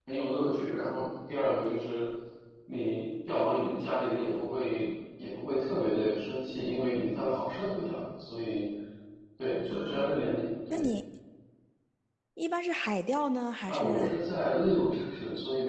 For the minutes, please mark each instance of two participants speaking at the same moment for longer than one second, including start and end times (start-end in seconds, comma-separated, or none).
none